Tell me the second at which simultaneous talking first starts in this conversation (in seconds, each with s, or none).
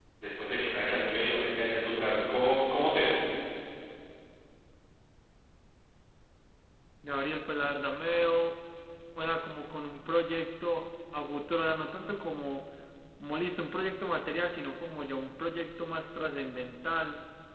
none